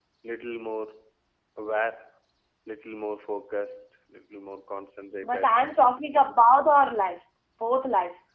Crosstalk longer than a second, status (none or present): none